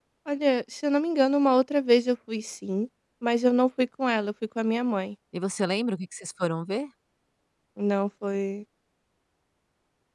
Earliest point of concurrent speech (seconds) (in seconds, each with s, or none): none